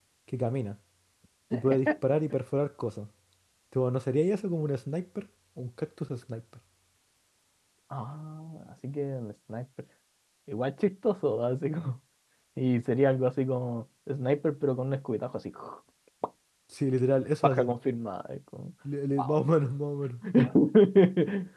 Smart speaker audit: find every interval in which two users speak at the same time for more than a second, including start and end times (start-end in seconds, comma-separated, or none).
none